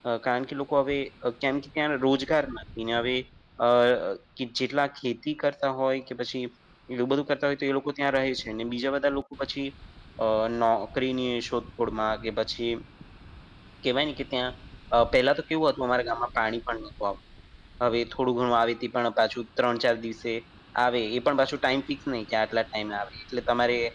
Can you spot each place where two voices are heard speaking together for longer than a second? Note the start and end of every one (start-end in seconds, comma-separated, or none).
none